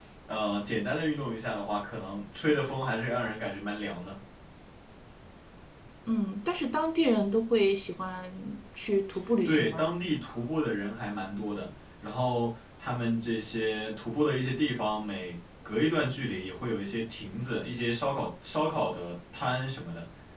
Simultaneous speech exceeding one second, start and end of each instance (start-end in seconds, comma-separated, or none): none